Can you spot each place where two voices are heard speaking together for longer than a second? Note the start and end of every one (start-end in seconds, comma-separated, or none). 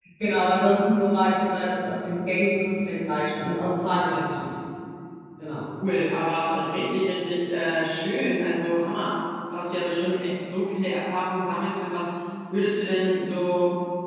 none